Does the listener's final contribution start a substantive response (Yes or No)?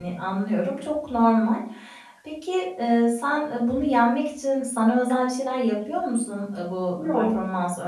No